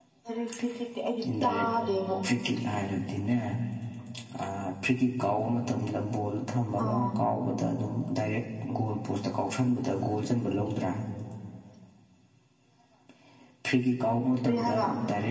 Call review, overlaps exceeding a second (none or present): none